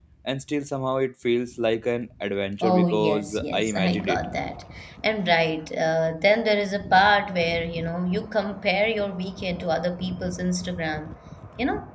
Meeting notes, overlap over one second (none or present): present